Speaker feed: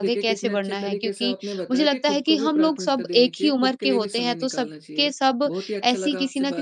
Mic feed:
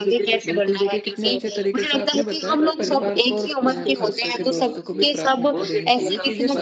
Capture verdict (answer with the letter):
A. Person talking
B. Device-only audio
A